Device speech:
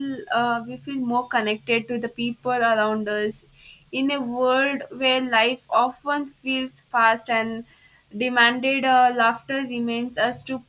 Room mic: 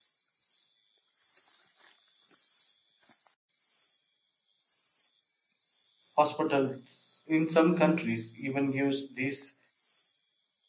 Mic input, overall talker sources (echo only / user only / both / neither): user only